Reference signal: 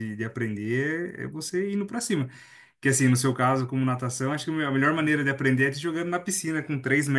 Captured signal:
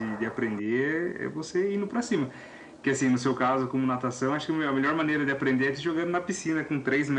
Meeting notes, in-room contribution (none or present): none